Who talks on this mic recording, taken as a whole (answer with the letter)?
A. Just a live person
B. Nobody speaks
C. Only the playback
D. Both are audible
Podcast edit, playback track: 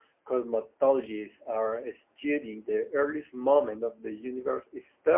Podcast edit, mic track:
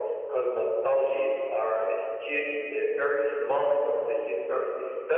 C